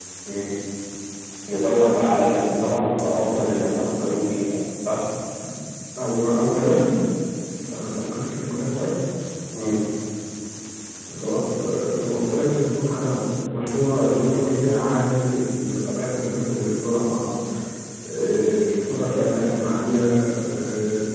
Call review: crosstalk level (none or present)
none